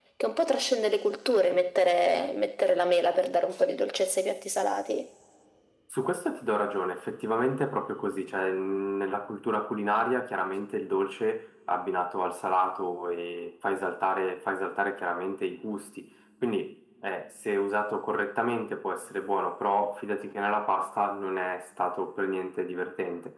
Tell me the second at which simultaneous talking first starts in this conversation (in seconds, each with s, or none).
none